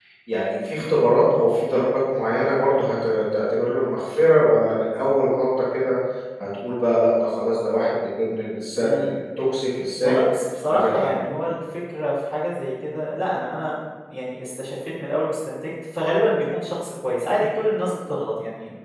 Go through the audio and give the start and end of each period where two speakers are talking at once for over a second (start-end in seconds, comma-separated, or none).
none